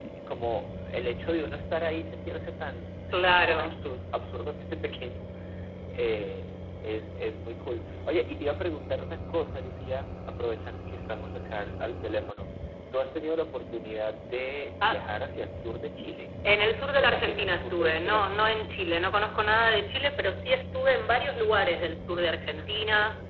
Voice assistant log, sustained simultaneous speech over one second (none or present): present